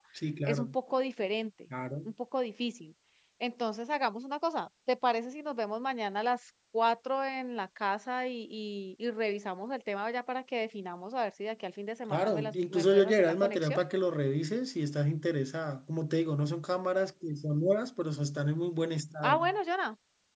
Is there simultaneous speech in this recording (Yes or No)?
Yes